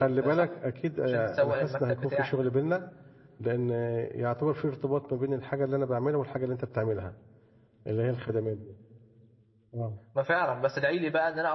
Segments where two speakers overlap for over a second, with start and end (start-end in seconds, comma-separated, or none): 1.1-2.4